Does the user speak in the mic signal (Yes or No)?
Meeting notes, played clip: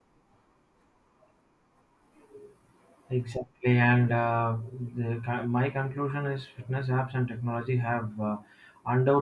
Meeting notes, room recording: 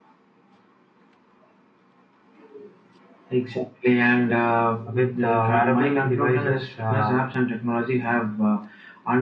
Yes